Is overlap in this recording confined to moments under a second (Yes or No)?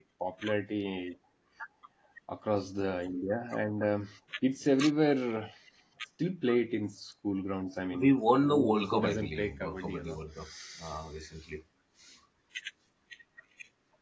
No